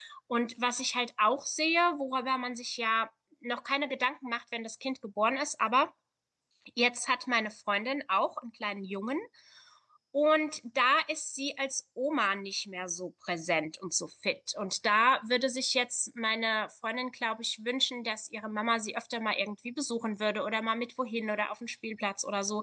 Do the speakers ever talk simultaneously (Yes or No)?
No